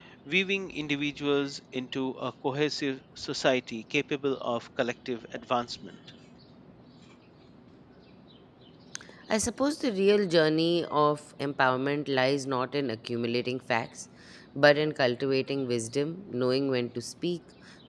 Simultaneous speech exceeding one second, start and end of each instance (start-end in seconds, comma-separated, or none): none